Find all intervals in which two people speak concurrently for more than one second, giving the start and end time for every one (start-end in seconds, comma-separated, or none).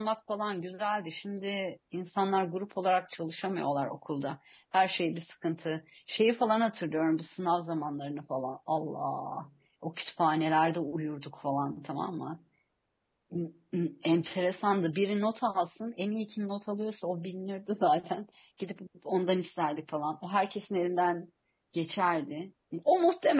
none